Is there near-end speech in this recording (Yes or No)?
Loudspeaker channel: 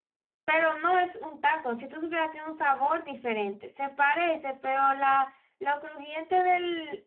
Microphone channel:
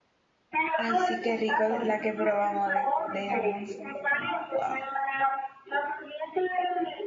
Yes